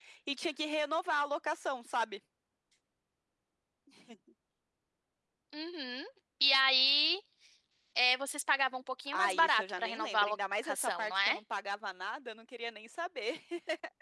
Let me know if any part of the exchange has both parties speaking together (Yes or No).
Yes